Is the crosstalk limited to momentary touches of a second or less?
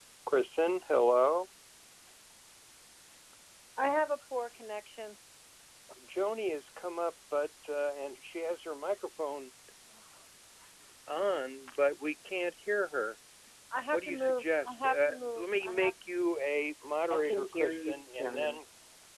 No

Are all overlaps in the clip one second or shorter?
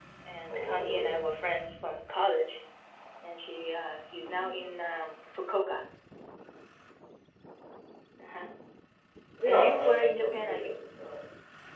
No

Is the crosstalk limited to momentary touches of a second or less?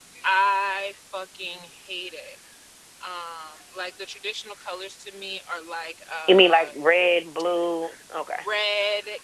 Yes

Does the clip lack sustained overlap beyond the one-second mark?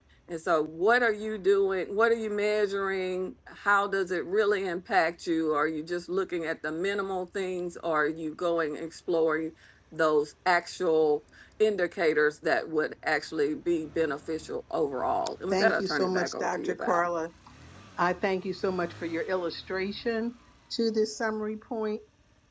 No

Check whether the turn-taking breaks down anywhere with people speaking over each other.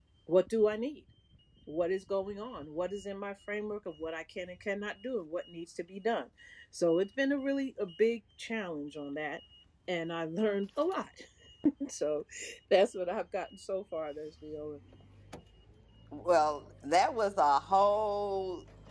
No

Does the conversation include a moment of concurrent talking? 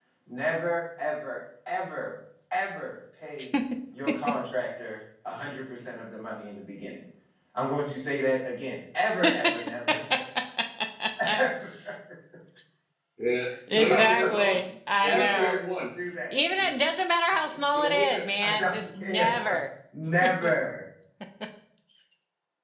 Yes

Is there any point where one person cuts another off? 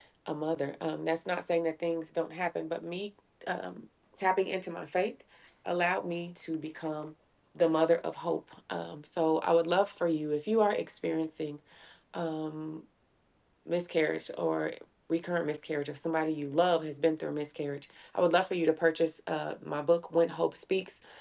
No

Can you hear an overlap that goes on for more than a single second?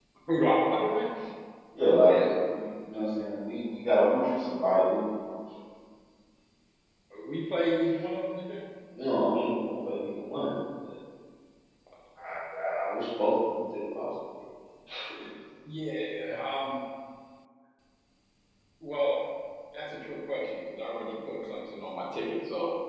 No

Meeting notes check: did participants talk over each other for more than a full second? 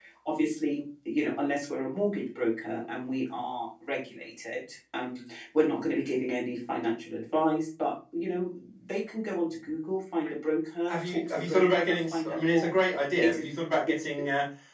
Yes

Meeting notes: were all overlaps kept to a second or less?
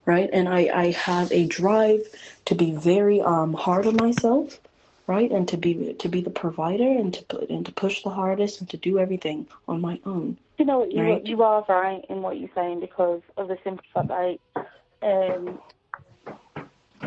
Yes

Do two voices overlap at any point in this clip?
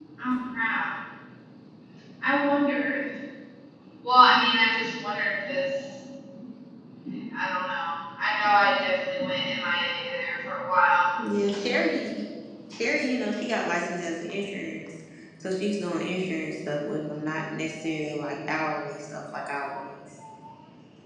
No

